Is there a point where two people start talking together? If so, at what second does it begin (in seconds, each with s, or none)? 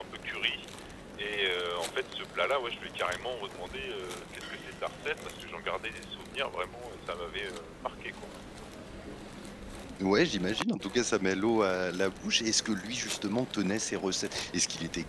none